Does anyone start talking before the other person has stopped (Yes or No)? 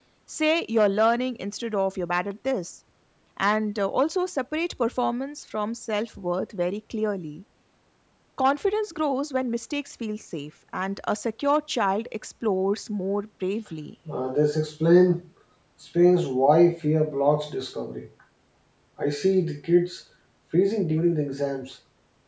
No